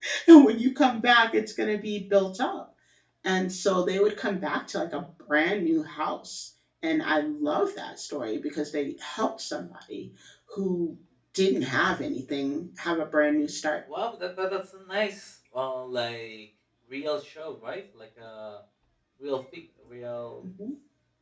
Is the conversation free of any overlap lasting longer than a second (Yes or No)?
Yes